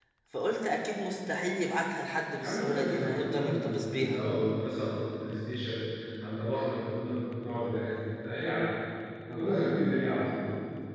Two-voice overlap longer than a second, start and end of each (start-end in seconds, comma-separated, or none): 2.3-4.2